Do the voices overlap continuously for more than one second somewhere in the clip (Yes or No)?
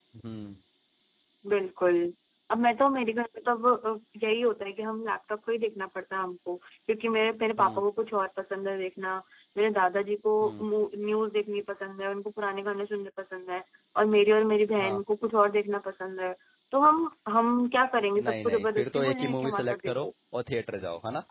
Yes